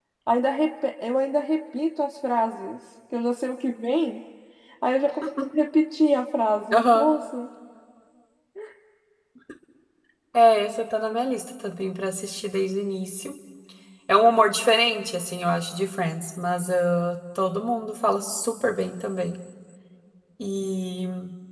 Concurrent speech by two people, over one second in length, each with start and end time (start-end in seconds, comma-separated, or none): none